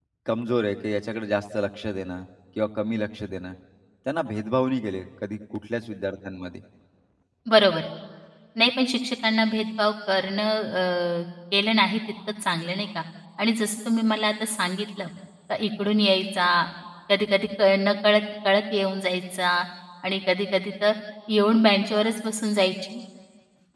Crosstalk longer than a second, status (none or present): none